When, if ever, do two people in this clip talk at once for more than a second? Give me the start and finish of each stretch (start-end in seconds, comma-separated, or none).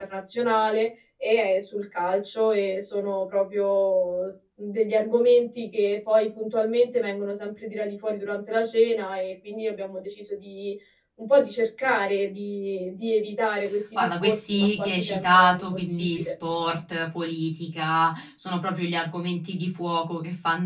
13.9-16.3